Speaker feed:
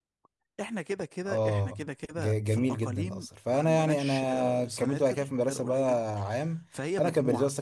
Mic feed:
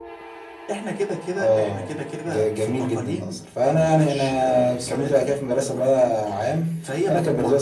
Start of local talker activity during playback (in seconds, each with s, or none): none